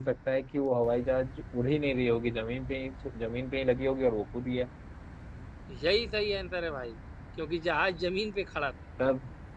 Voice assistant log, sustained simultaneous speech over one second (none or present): none